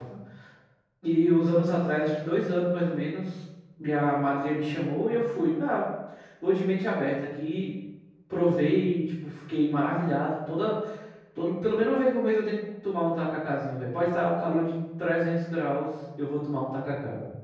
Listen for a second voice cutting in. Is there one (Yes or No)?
No